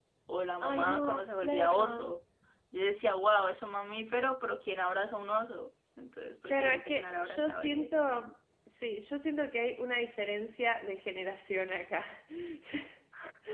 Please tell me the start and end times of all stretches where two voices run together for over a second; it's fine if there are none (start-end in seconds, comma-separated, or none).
0.6-2.1, 6.5-7.9